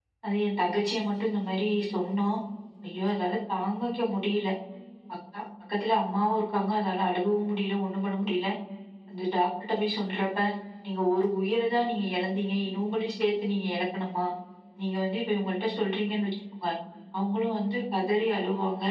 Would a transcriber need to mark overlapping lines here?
No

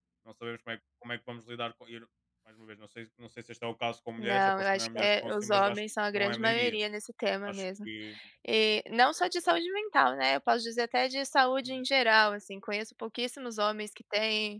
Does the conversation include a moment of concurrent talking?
Yes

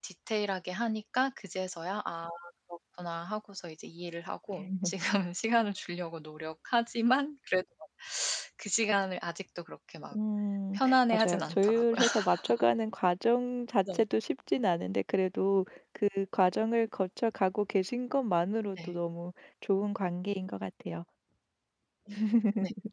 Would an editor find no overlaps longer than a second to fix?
No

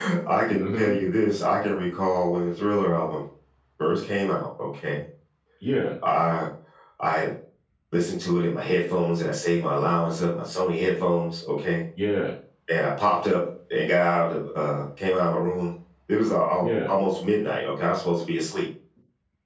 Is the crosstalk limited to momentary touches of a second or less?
Yes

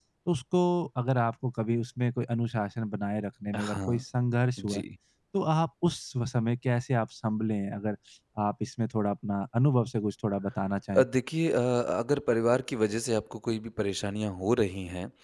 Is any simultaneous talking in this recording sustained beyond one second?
No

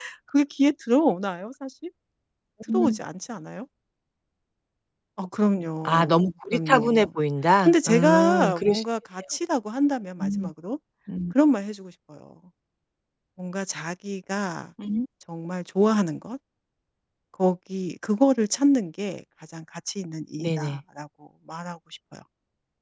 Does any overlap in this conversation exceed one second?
Yes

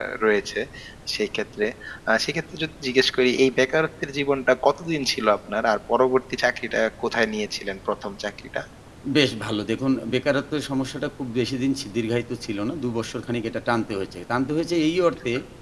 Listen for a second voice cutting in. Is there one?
No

